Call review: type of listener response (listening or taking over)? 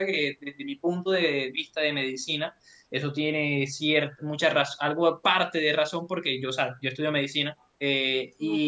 listening